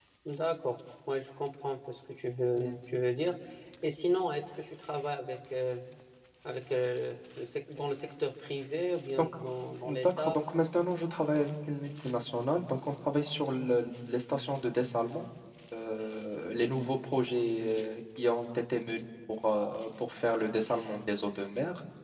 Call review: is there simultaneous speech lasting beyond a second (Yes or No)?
No